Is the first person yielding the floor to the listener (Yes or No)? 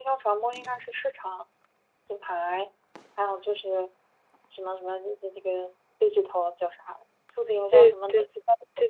Yes